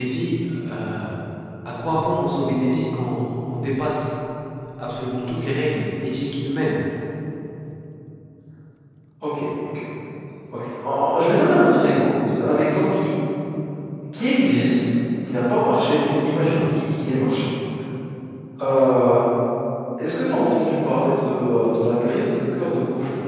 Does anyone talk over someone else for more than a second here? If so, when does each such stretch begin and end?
none

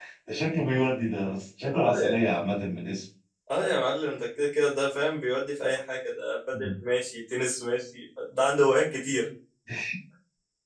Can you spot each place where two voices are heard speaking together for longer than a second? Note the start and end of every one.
none

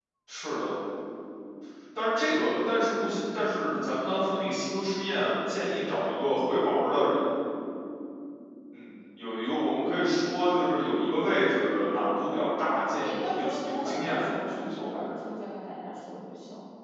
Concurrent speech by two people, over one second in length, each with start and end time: 13.0-14.9

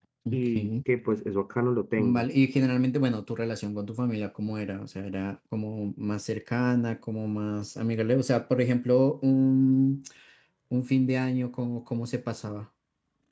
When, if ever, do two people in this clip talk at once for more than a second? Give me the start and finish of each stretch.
none

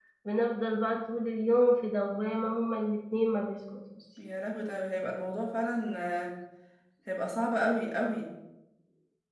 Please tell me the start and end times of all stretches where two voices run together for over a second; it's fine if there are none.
none

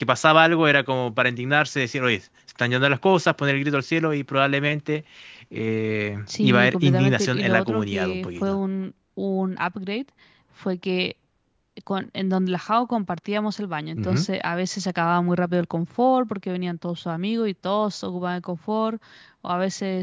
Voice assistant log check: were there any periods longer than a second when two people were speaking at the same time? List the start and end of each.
6.4-8.6

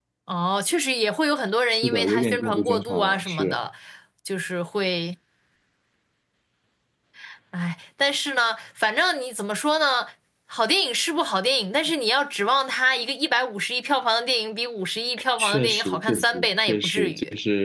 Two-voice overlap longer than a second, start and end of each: 1.8-3.6, 15.4-17.1

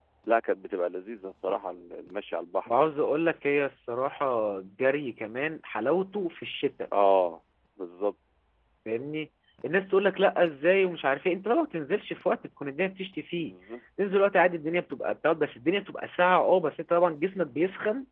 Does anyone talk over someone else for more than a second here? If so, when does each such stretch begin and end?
none

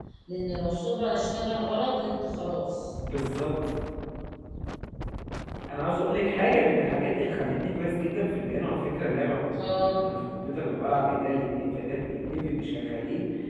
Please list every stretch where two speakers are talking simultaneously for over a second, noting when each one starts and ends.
none

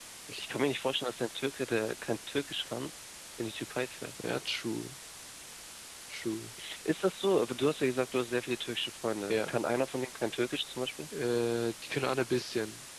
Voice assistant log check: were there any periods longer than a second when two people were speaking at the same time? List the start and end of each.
none

